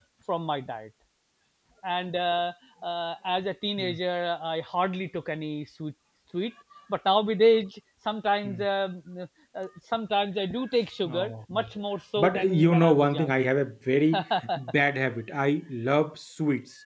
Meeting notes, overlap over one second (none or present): present